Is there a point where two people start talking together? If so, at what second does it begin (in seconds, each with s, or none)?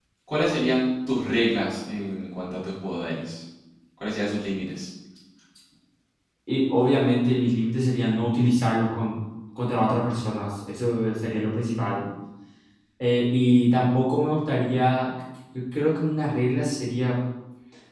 none